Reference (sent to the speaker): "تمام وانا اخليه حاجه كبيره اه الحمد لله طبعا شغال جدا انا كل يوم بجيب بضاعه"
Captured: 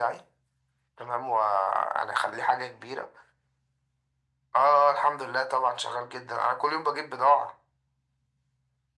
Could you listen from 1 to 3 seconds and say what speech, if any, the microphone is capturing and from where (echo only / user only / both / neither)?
echo only